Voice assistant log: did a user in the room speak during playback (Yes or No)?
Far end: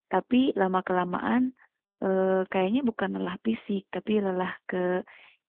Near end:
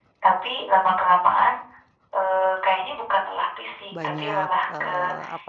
Yes